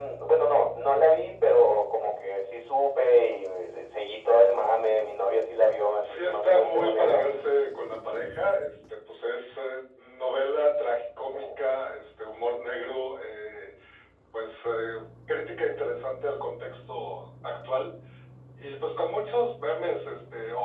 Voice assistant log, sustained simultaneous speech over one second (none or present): present